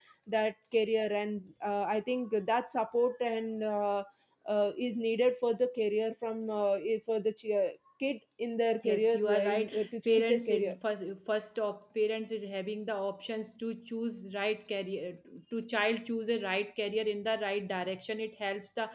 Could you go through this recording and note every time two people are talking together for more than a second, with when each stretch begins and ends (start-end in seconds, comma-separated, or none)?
8.8-10.7